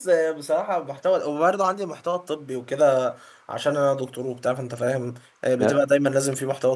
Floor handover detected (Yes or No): No